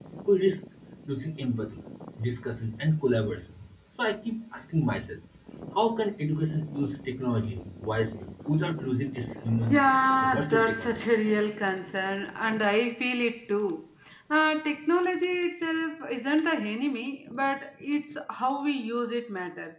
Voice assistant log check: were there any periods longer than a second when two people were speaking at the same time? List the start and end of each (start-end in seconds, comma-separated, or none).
9.7-11.0